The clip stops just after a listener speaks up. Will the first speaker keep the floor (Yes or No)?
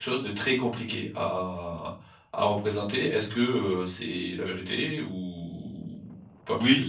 No